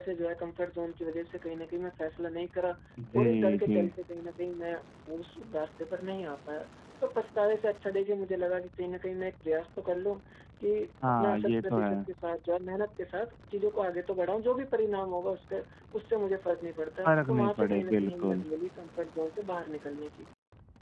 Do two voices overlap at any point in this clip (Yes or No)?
Yes